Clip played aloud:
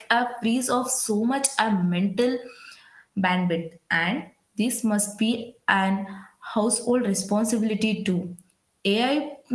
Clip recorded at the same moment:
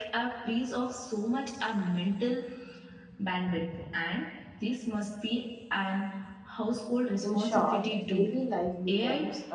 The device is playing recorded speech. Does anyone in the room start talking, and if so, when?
7.2 s

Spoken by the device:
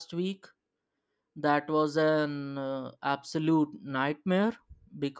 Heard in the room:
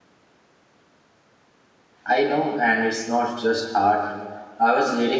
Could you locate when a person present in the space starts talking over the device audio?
2.0 s

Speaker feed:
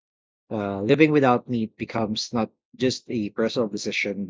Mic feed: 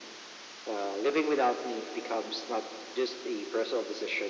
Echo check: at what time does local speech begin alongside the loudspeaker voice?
none

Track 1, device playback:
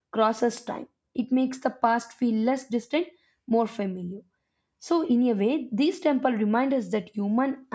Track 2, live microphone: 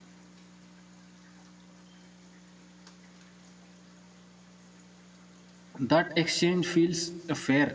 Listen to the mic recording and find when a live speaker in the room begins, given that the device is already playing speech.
5.8 s

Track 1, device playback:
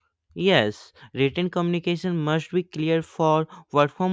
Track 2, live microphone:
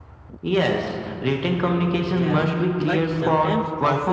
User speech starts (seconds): 2.0 s

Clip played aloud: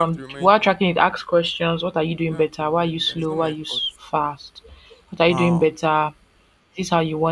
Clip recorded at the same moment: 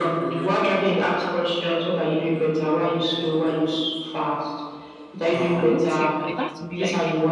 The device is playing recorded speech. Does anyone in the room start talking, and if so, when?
5.6 s

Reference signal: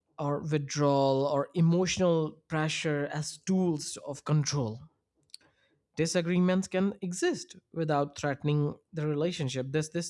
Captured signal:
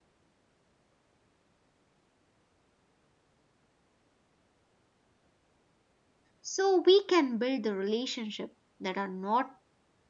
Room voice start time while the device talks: 6.4 s

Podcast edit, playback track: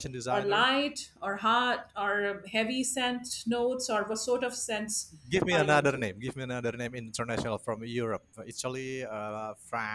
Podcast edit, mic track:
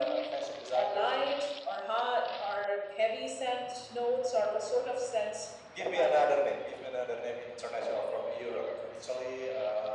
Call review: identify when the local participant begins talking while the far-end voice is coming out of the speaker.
none

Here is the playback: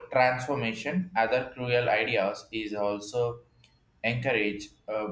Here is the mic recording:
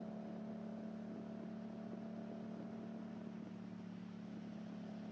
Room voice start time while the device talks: none

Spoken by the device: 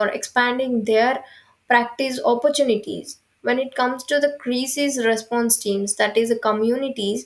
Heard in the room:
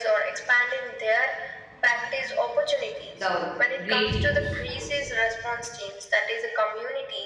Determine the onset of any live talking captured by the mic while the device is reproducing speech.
3.2 s

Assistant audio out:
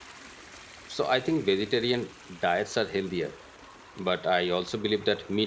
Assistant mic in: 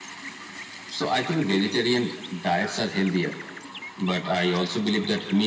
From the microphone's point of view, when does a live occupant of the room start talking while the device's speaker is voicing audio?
none

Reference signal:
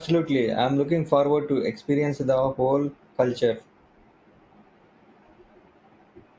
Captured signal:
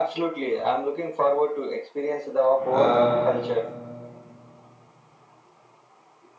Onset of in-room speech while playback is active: 2.7 s

